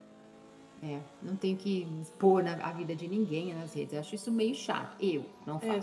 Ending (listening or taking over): taking over